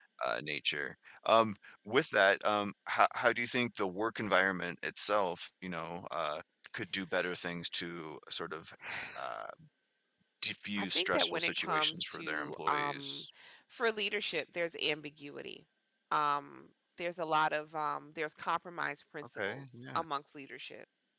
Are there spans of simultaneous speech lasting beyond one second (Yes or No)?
Yes